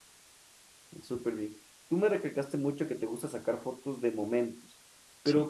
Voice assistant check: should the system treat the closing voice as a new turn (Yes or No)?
No